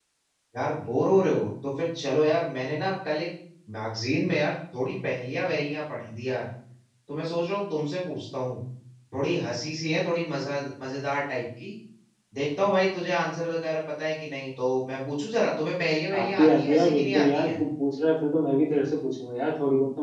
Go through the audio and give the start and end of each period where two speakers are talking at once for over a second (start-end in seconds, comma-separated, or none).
16.2-17.5